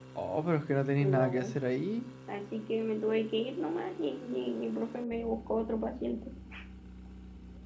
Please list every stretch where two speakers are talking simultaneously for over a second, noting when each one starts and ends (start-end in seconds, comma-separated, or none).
none